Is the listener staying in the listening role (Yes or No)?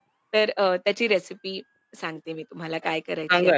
No